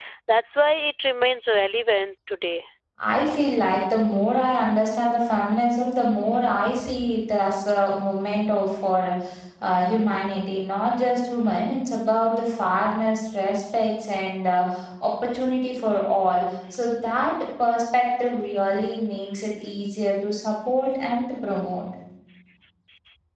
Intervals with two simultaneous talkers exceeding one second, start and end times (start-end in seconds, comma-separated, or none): none